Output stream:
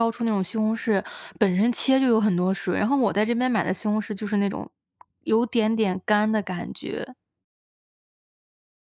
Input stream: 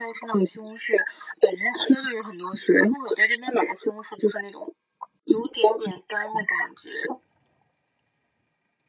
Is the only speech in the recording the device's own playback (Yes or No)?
Yes